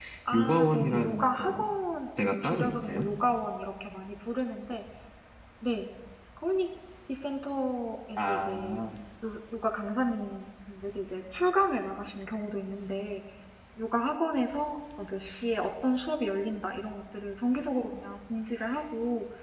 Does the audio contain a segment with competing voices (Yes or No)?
Yes